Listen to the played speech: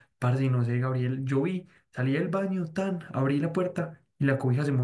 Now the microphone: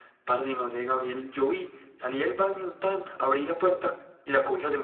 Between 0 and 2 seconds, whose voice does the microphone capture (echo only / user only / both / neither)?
echo only